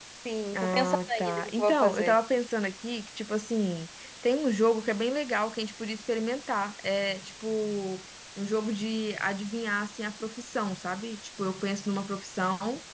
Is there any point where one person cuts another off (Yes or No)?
Yes